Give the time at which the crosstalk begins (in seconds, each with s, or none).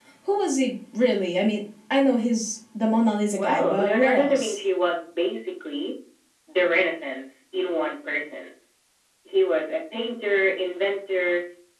3.3 s